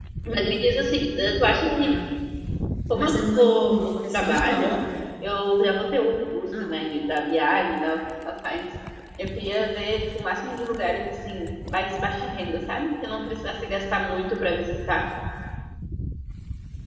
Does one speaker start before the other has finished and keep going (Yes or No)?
Yes